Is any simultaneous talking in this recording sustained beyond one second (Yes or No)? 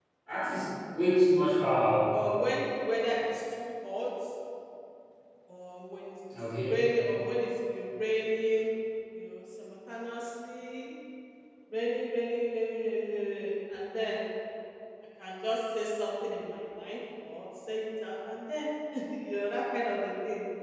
No